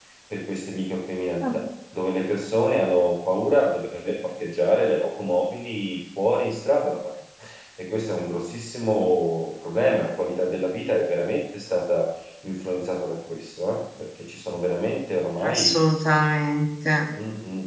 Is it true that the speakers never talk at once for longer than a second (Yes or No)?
Yes